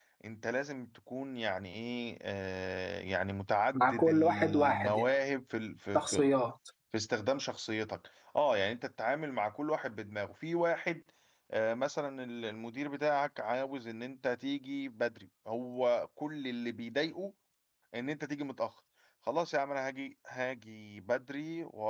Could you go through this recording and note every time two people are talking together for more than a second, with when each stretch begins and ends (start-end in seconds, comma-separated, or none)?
3.7-5.2